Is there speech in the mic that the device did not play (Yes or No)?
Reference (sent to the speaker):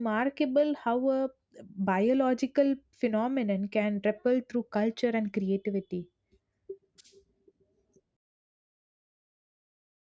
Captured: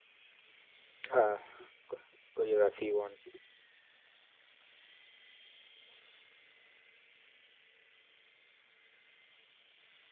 Yes